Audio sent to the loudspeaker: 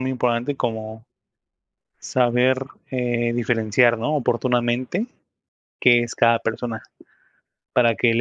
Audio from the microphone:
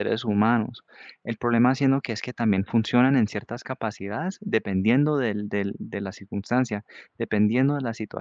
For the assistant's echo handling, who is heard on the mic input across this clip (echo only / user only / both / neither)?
user only